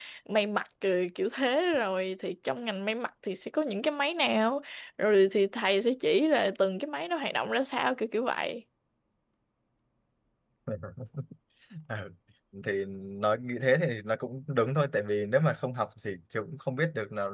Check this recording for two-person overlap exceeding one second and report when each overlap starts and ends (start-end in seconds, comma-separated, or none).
none